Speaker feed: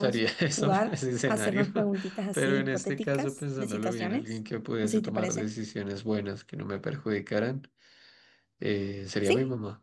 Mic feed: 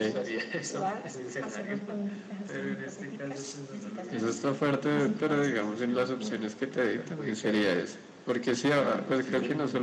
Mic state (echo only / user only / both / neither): both